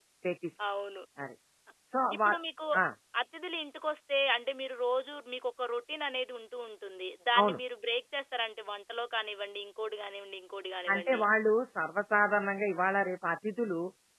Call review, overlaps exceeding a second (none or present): none